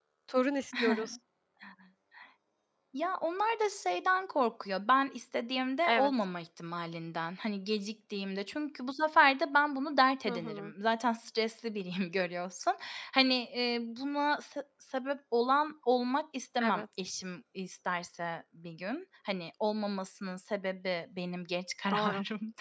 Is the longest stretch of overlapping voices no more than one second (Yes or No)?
Yes